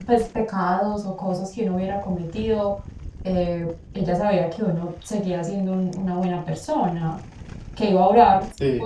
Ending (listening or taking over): listening